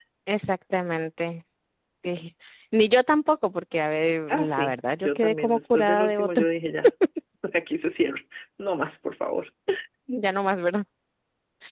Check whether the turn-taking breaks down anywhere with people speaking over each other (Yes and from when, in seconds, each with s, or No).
Yes, from 4.3 s